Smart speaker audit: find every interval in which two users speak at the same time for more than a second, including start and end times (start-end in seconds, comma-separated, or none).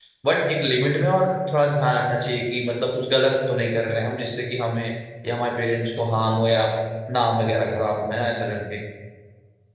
none